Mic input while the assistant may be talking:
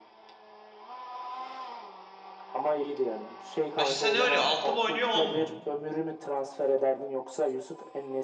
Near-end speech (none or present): present